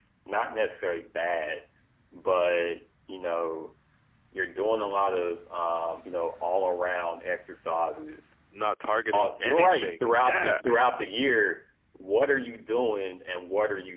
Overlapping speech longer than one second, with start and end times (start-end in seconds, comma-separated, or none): 9.1-10.6